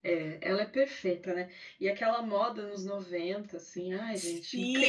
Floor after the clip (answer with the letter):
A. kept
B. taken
B